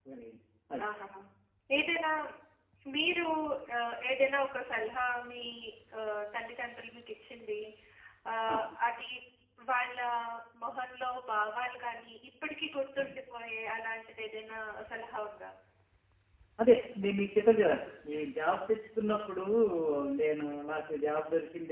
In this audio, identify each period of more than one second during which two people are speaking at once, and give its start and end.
none

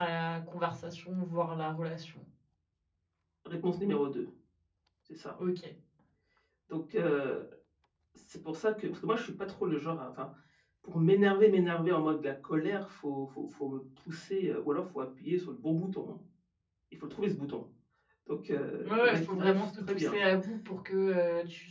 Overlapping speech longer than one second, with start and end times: 18.8-20.1

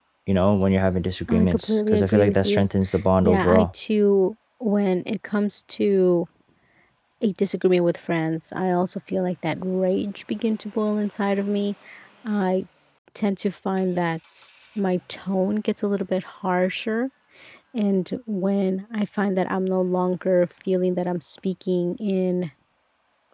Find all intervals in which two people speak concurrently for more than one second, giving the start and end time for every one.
1.3-2.7

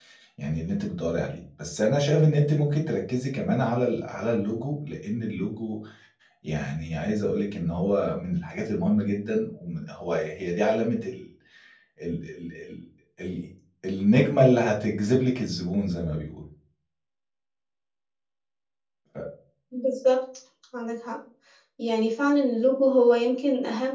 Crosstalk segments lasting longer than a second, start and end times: none

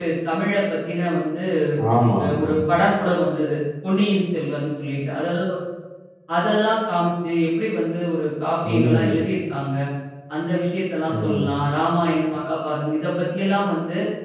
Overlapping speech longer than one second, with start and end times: none

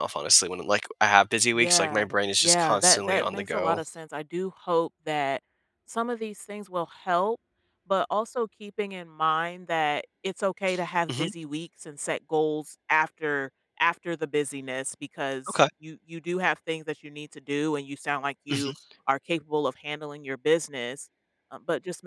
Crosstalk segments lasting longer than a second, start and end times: 2.4-3.8

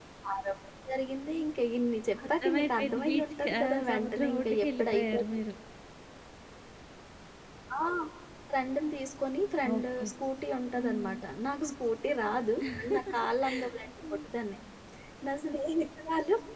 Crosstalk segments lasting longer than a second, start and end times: 2.4-5.4

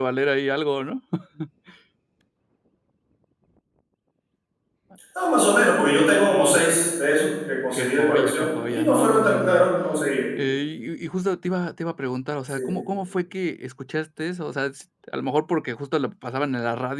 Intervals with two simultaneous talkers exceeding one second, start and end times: 7.7-9.7

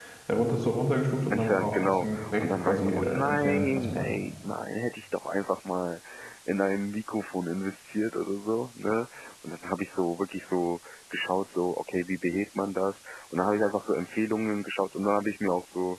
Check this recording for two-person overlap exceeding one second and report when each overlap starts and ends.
1.3-4.1

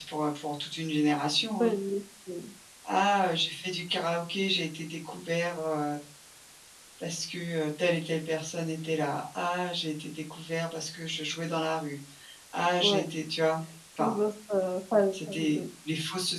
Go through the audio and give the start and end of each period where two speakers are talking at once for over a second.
none

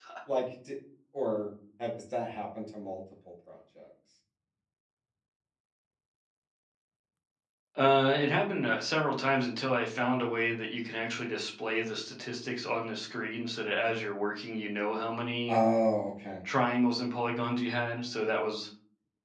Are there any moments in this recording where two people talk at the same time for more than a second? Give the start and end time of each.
none

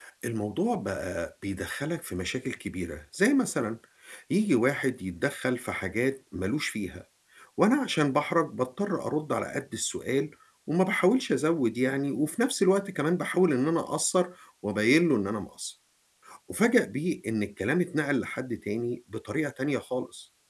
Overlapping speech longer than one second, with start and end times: none

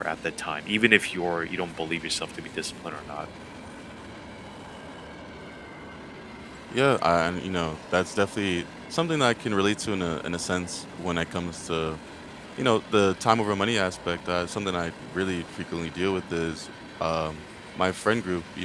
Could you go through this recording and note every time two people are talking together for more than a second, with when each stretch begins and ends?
none

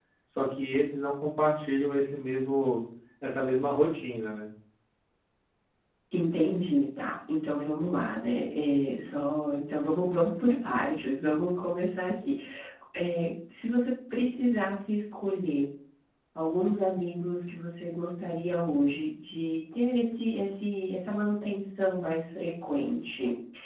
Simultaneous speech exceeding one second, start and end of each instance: none

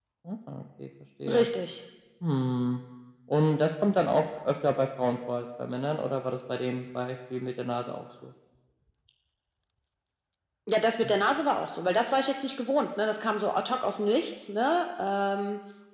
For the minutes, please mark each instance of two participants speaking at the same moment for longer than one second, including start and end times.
none

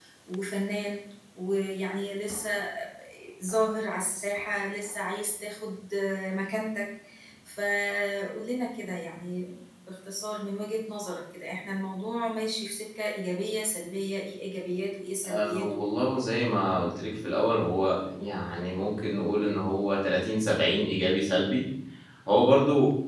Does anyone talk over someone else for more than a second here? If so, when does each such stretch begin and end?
none

